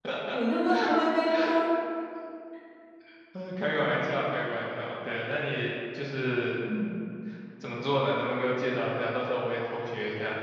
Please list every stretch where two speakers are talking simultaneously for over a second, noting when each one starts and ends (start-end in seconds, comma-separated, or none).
none